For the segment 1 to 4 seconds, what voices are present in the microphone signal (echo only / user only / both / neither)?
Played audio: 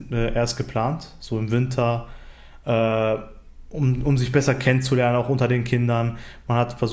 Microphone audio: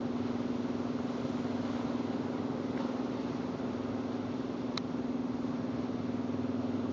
neither